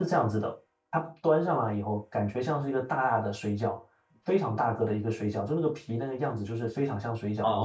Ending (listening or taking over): taking over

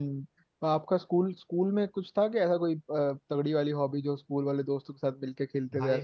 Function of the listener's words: taking over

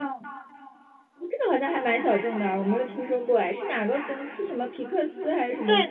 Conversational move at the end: taking over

